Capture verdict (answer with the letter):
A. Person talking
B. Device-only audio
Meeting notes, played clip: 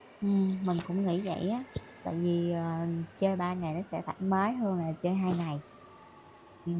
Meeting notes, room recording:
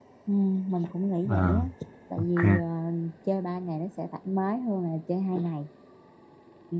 A